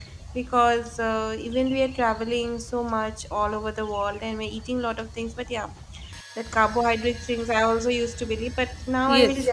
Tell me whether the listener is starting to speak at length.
Yes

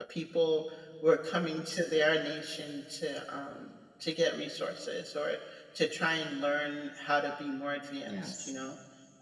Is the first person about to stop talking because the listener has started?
No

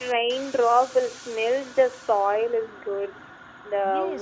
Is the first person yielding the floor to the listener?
Yes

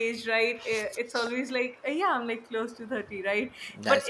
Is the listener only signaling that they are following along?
Yes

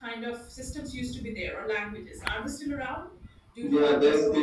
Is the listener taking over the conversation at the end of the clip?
Yes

